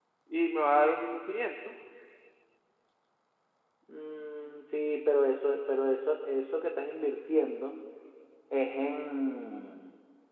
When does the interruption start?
none

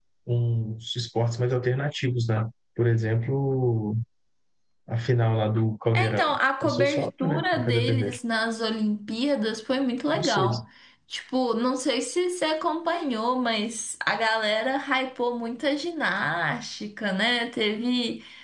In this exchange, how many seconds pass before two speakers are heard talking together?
5.9 s

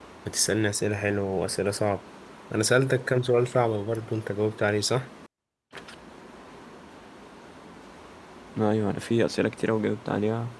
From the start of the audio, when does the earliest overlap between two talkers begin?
none

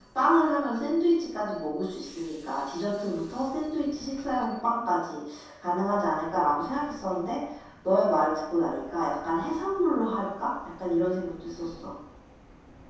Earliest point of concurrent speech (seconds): none

